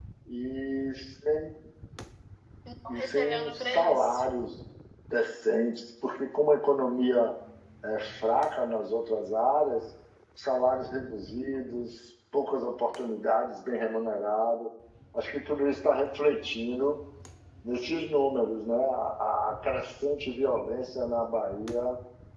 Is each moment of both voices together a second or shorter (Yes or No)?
No